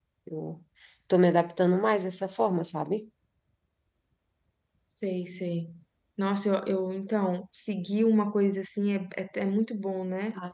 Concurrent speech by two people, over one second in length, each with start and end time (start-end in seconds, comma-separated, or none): none